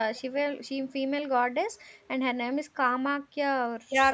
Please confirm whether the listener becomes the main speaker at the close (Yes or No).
Yes